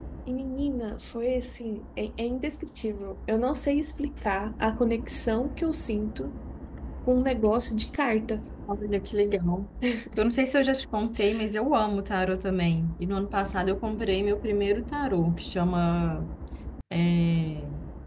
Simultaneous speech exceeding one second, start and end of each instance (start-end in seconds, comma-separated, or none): none